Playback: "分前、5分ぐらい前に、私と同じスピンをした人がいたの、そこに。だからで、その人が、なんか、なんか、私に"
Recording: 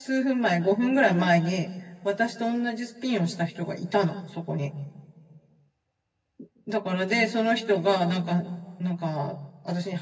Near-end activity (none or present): present